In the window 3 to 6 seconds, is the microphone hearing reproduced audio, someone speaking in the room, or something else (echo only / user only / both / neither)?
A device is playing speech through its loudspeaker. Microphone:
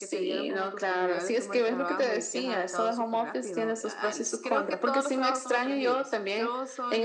both